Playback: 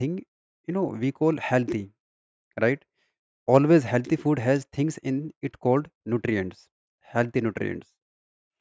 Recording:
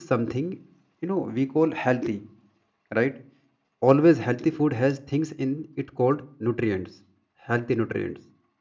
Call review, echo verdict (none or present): present